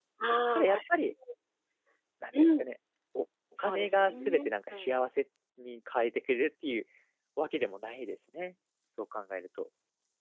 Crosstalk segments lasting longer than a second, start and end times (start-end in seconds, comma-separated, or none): 3.6-4.9